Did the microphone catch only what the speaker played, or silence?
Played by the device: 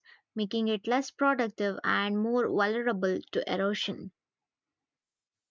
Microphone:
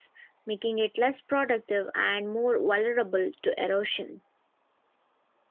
Yes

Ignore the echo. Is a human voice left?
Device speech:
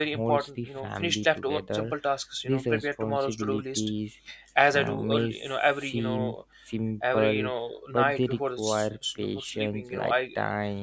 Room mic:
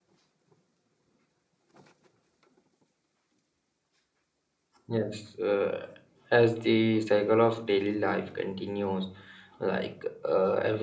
Yes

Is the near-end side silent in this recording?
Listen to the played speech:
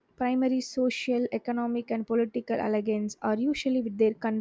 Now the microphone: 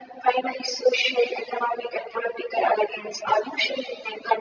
Yes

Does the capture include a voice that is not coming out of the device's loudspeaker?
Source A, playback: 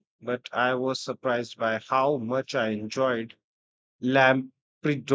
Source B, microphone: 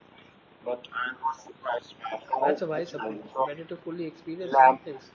Yes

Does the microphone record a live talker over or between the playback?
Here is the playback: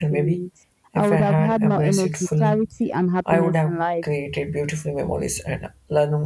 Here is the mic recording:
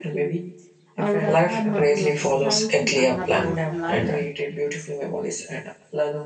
Yes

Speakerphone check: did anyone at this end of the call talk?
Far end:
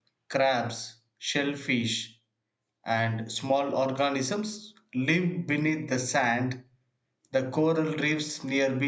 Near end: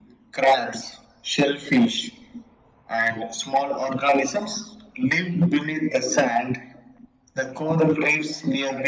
No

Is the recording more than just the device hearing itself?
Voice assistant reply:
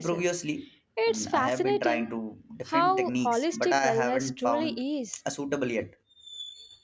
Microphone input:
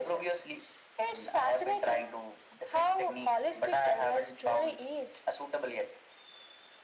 No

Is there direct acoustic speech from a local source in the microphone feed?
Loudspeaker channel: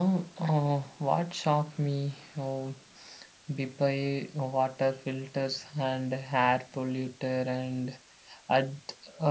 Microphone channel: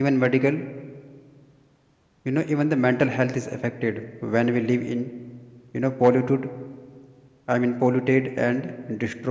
Yes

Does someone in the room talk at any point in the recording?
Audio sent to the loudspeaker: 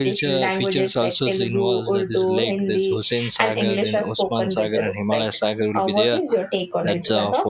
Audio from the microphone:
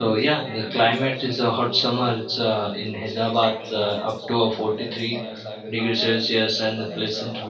Yes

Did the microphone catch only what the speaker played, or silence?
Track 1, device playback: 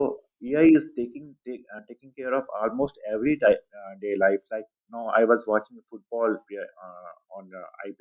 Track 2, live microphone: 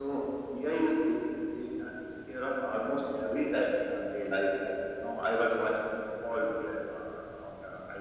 Yes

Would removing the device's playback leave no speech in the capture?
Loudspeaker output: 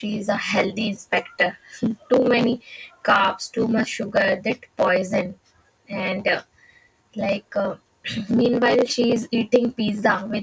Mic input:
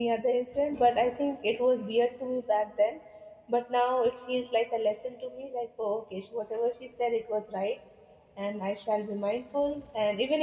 No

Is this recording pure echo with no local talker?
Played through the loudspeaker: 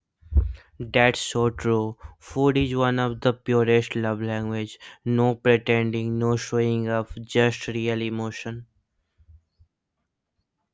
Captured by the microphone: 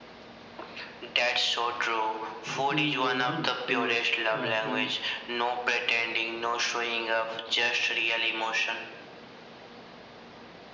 No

